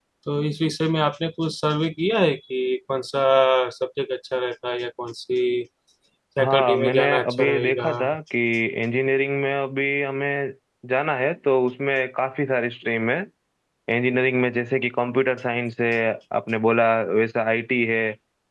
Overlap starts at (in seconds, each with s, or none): 6.4 s